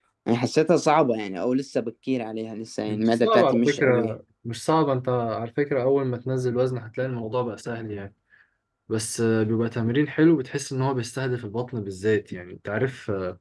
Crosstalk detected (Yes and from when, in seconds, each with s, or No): Yes, from 2.9 s